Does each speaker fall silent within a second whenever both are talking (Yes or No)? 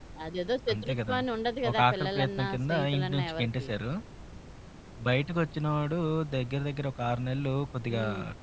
No